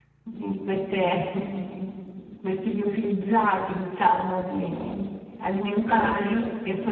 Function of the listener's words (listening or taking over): listening